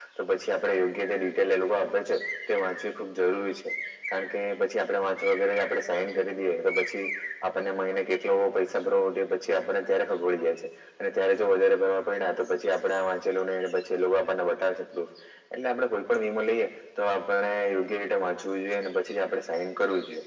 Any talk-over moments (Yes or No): No